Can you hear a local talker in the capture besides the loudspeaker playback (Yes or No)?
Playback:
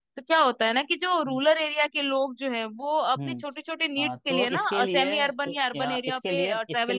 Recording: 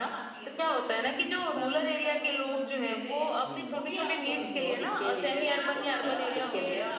Yes